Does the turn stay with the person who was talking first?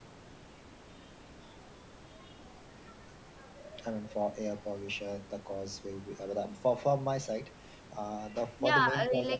No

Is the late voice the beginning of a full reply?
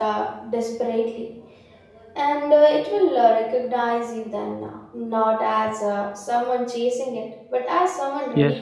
Yes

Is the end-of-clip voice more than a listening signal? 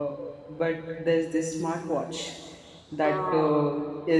No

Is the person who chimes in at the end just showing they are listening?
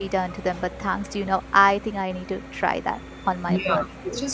No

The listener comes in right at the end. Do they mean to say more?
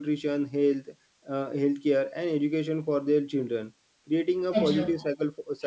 No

